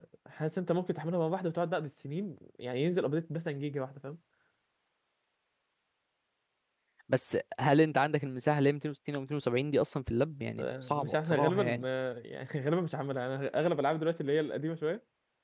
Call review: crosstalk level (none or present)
present